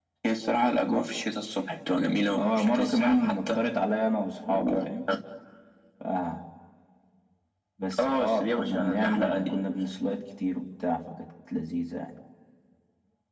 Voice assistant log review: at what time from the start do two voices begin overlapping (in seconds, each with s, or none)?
2.3 s